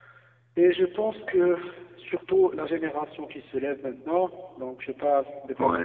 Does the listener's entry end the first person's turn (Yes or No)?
No